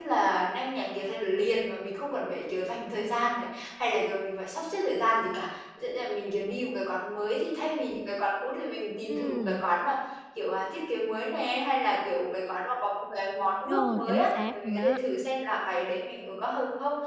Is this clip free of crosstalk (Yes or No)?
No